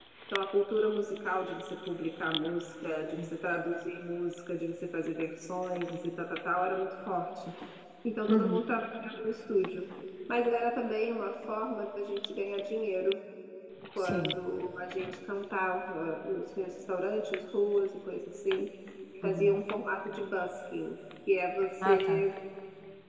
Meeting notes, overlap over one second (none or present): none